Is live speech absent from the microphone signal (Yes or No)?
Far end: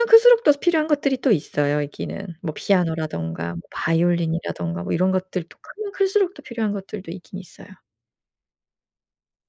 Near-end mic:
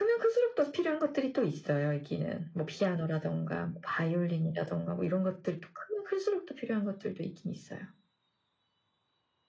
Yes